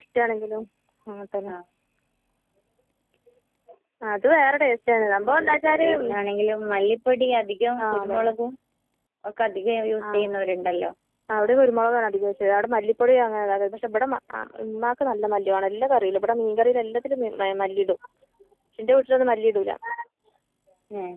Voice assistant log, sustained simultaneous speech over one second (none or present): none